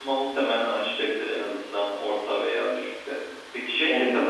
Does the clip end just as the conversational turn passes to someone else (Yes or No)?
No